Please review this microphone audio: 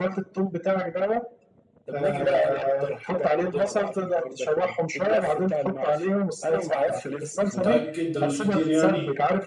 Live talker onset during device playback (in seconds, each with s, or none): 7.5 s